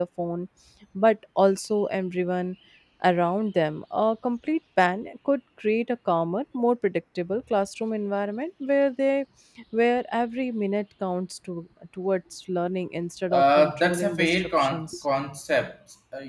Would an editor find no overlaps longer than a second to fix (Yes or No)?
No